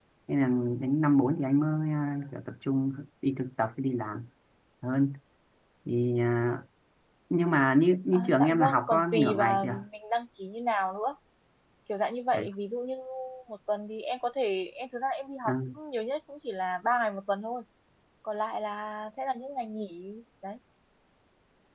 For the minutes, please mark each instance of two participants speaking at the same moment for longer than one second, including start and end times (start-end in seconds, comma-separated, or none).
8.1-9.8